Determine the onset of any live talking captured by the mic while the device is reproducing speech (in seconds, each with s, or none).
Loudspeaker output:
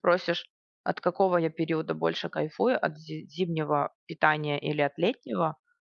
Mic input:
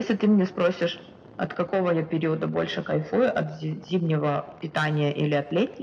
none